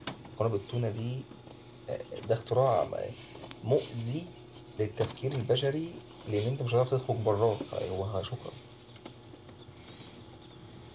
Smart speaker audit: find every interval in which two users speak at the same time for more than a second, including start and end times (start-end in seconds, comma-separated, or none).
none